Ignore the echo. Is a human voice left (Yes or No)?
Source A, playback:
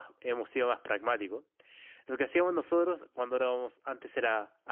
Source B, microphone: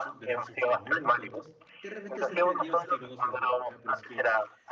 Yes